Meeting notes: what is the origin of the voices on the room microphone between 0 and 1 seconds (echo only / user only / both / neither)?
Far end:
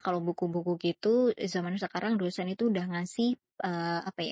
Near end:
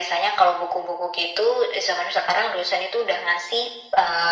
echo only